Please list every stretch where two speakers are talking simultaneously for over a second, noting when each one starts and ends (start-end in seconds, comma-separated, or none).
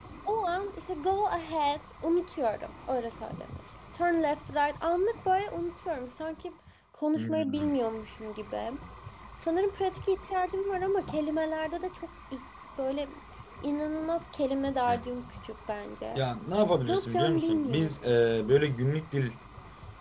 16.9-18.1